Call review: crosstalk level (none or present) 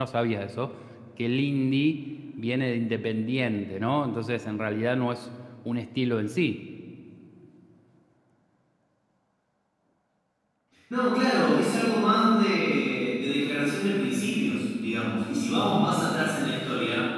none